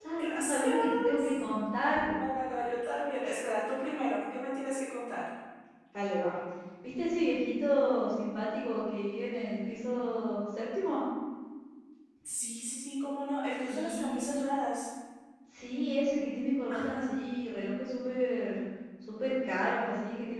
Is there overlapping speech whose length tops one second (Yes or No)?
Yes